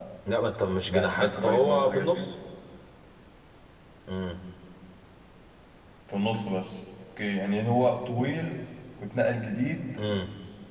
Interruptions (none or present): present